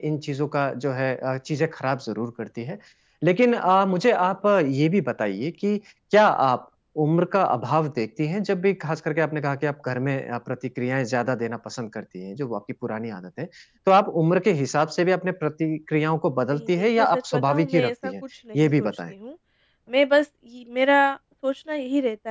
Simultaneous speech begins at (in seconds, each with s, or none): 16.5 s